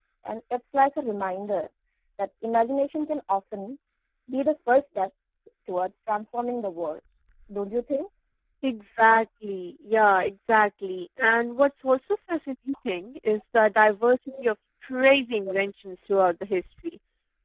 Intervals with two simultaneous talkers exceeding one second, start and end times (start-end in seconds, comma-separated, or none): none